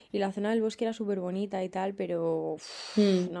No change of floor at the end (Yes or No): Yes